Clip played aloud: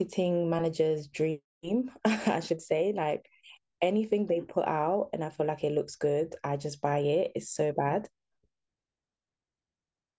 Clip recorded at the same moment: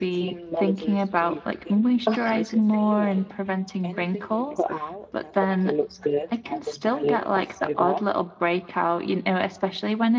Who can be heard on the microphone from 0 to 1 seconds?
both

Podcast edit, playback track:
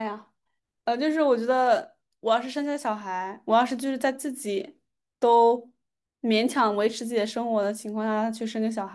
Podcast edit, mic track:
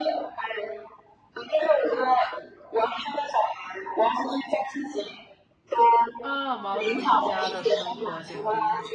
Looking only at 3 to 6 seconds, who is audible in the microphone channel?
echo only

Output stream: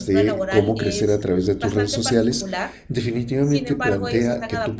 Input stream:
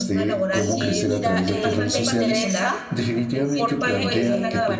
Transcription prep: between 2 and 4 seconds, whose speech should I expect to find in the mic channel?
both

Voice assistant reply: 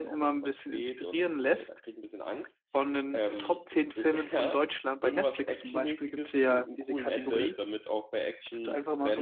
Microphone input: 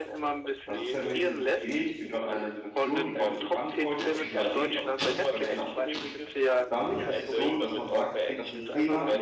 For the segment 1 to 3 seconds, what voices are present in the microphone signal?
both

